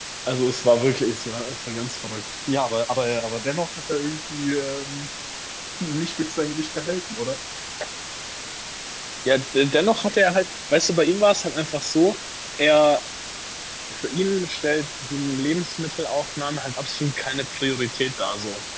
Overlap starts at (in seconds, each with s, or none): none